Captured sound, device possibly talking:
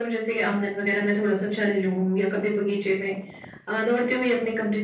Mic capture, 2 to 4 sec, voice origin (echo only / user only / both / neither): echo only